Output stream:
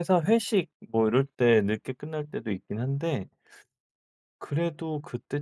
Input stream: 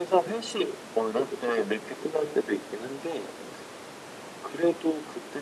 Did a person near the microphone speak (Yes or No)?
No